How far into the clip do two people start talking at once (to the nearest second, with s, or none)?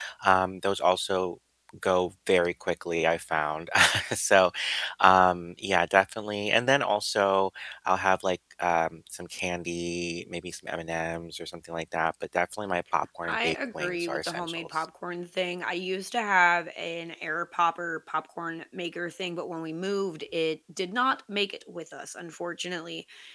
13 s